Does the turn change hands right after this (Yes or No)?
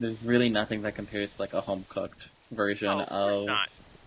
Yes